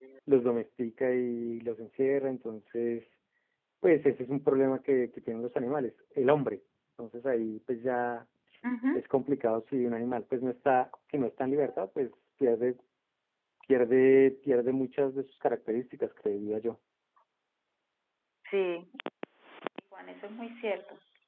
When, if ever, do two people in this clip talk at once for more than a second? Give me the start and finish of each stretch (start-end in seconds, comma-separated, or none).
none